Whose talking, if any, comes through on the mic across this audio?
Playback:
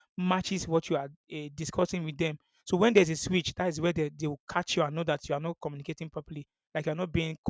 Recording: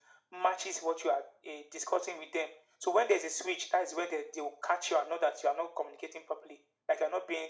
echo only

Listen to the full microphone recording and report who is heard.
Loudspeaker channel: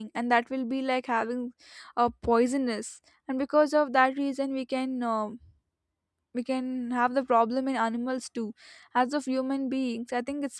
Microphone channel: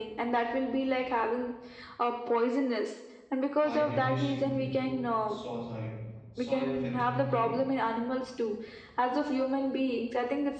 both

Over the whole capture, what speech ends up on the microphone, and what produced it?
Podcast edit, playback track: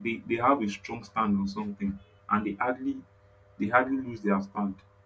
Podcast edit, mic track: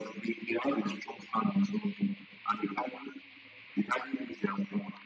echo only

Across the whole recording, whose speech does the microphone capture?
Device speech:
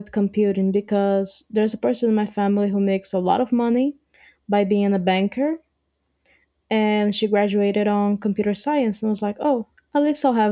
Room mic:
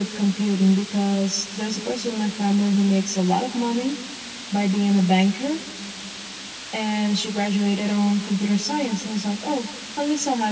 echo only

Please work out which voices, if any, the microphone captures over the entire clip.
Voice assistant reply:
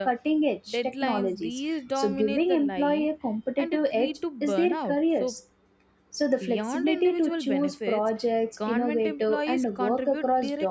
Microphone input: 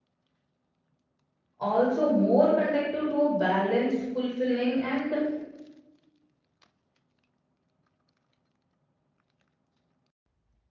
user only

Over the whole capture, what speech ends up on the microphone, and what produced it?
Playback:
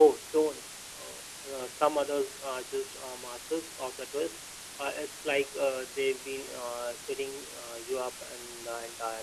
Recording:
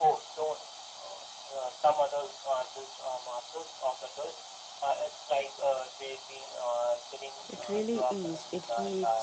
both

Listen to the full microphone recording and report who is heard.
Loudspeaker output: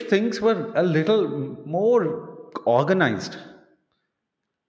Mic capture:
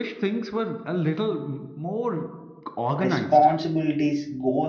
both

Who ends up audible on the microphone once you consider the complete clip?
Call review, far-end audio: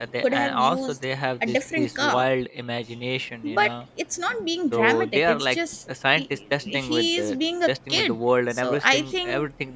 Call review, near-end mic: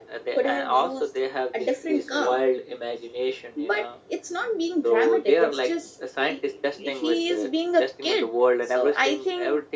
echo only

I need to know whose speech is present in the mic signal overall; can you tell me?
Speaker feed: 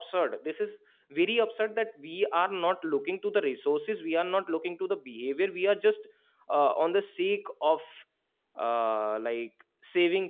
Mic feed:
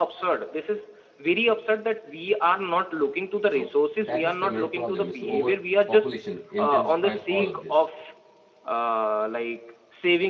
both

